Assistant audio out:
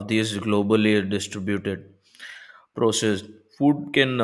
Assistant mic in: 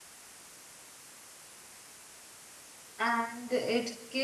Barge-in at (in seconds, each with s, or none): 3.0 s